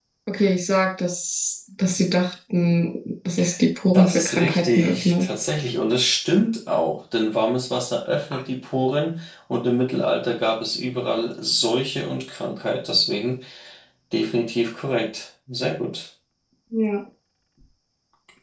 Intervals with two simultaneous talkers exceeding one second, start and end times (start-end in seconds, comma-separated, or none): 3.9-5.3